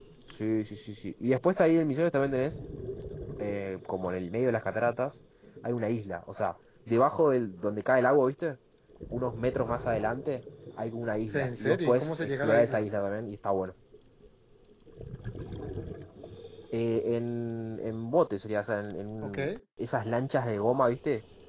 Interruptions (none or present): present